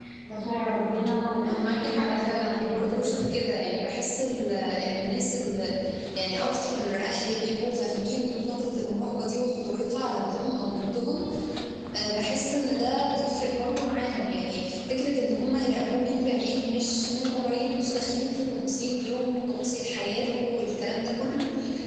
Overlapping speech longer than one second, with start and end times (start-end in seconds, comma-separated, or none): 1.4-3.5